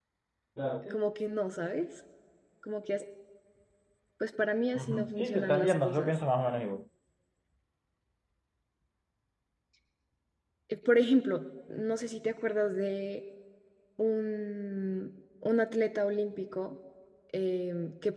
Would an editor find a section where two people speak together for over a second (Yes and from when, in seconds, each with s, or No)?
Yes, from 4.8 s